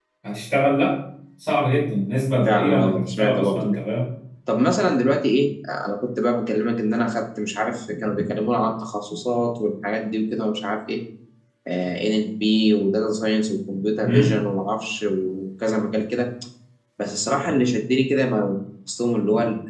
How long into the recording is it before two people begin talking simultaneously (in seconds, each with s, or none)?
2.5 s